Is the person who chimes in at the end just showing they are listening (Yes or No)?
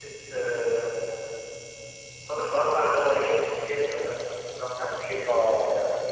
No